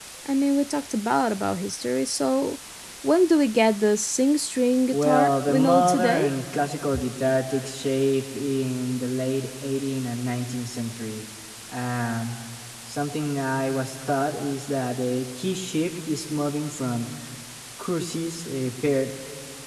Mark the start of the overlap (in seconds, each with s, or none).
4.9 s